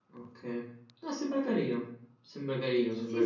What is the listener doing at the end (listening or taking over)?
taking over